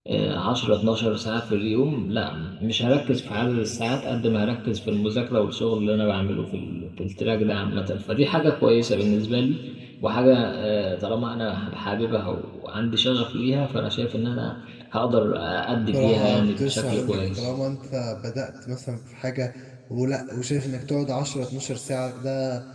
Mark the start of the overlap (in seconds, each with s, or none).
15.9 s